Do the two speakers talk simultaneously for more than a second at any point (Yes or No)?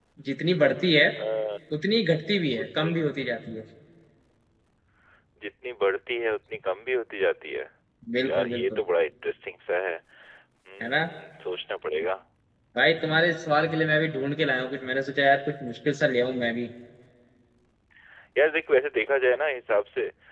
No